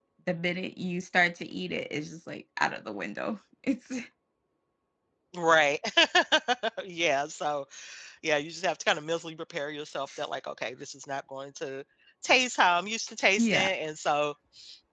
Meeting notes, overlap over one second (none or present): none